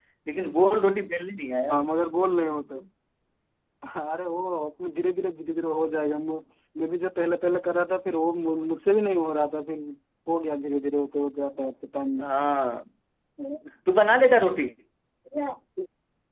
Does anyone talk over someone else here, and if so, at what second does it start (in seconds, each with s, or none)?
none